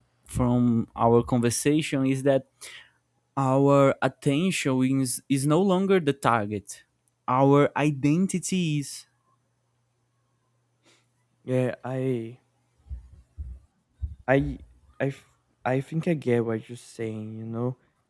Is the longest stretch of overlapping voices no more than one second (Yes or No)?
Yes